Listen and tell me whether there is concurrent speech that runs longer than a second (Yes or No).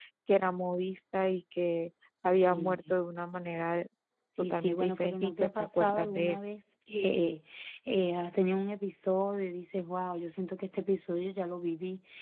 Yes